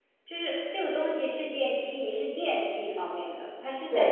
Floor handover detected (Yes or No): Yes